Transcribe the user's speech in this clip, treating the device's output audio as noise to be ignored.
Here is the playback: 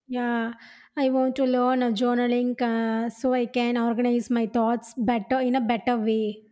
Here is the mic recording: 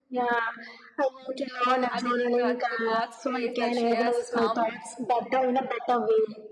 I think that's the God's grace that she has come.

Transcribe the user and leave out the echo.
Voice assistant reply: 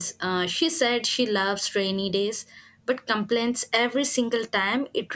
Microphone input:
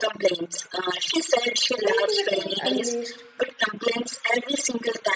creativity unleashed,

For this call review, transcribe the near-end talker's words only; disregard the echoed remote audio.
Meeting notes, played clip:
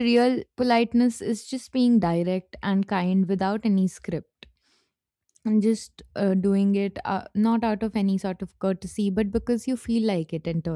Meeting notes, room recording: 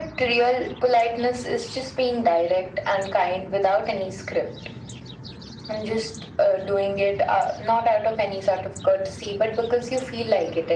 none

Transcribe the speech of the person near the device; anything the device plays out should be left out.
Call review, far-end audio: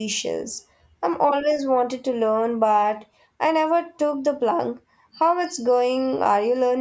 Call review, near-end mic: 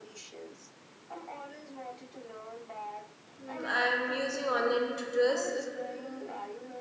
Mm, I'm using online tutors.

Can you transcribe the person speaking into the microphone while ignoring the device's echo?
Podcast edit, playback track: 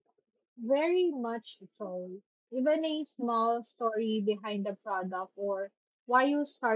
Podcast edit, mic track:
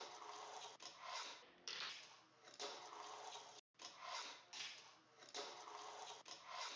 none

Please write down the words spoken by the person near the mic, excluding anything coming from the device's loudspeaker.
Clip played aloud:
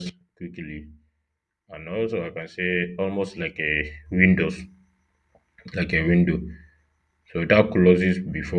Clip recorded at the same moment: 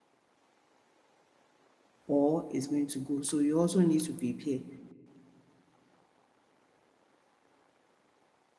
or is going to go. So you also need to prepare

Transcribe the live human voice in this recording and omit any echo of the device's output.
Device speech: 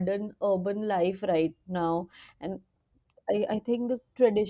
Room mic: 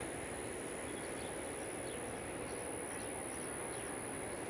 none

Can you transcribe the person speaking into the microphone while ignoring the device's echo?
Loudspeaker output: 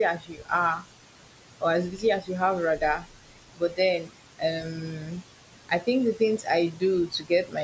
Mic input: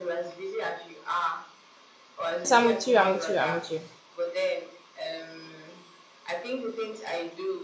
Yes, I'm with you, I'm with you, I'm with you.

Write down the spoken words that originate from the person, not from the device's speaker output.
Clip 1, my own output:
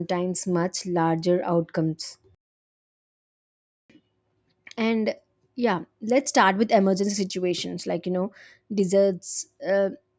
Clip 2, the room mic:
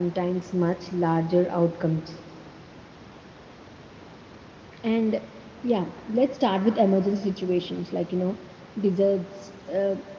none

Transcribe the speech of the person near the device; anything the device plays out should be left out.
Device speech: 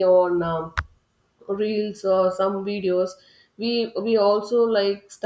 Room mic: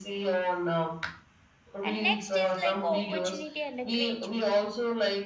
And next is like a opportunity and a creativity.

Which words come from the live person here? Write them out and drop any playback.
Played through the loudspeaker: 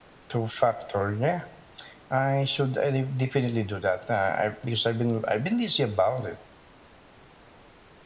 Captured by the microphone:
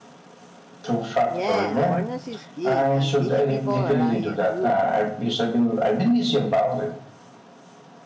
Yeah, awareness is key and teach people around you too.

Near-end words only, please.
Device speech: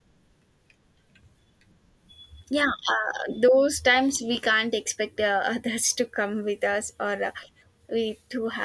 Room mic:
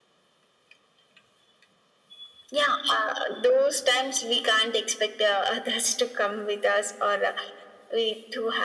none

